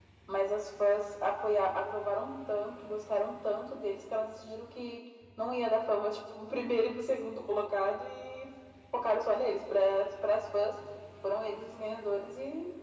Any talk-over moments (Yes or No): No